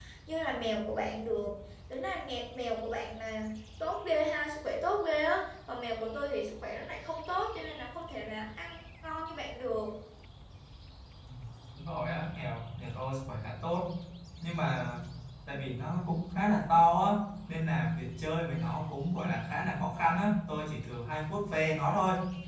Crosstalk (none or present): none